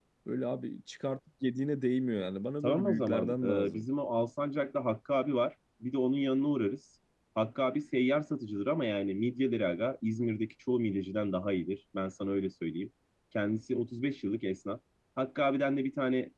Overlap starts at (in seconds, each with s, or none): 2.6 s